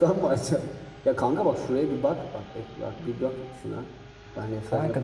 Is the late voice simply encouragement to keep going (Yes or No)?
No